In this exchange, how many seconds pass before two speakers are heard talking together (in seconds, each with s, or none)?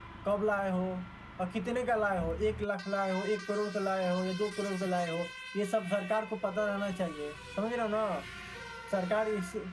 none